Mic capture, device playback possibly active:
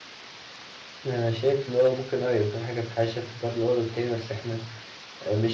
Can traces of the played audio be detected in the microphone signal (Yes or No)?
No